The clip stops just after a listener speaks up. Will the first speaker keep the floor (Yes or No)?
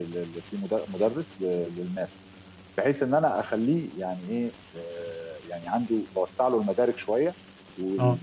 Yes